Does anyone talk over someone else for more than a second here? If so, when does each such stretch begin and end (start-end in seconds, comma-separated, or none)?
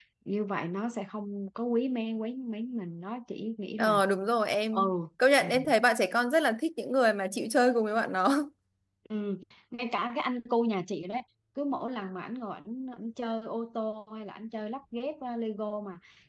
none